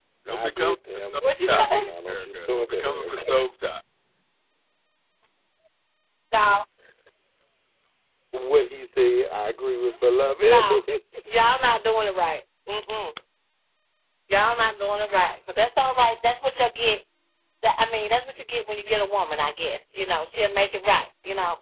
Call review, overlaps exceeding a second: present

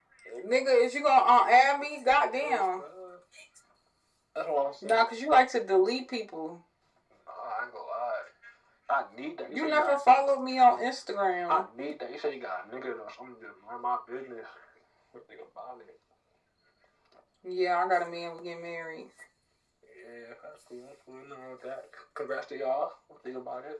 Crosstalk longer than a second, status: none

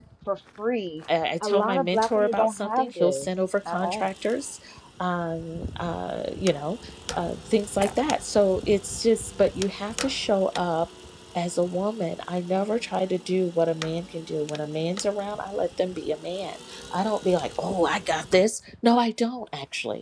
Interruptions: present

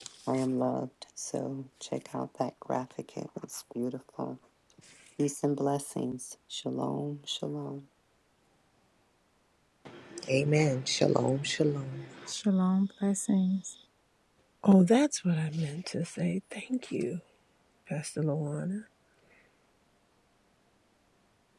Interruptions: none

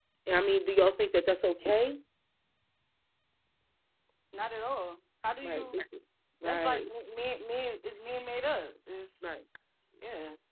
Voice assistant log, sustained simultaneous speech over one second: none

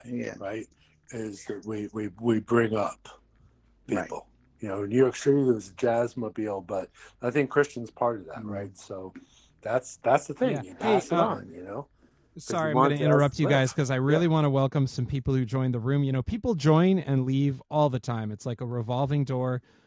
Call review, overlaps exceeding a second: present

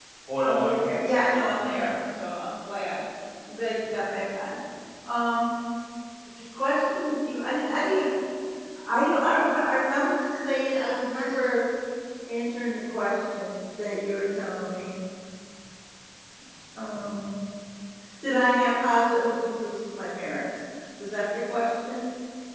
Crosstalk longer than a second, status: present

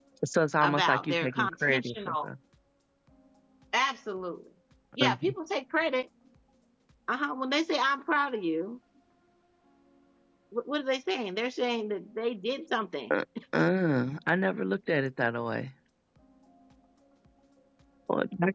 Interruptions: present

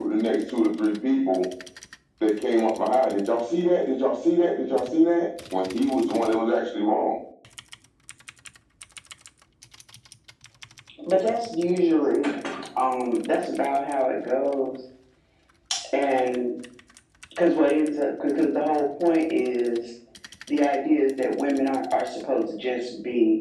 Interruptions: none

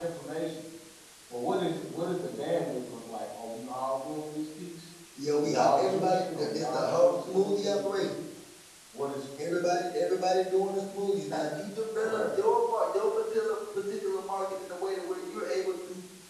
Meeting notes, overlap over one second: present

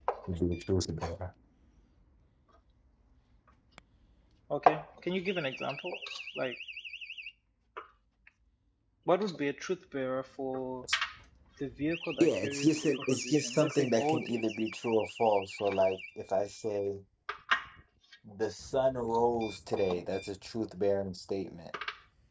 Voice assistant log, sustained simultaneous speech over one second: present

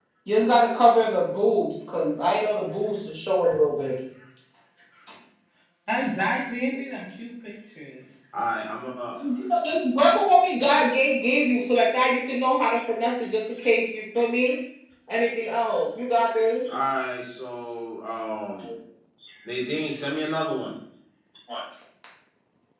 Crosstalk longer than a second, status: none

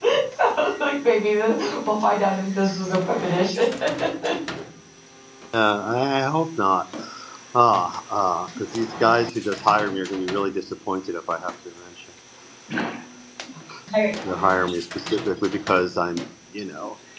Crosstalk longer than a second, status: none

